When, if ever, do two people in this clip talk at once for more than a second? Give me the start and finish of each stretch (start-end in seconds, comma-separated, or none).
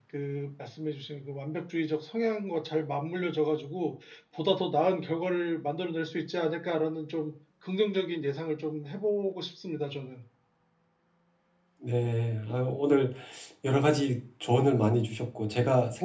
none